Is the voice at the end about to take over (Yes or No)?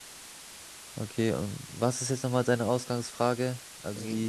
Yes